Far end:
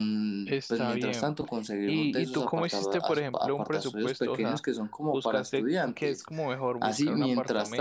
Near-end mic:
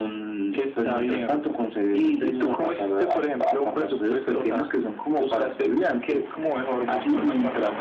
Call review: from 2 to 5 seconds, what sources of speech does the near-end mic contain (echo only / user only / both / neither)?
echo only